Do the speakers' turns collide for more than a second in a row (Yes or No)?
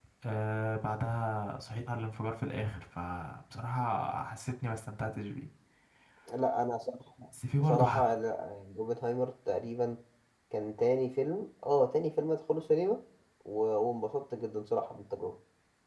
No